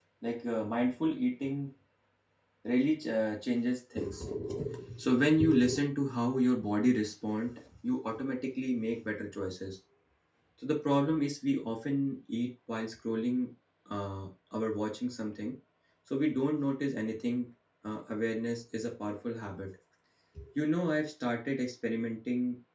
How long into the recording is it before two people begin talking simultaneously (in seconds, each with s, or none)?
none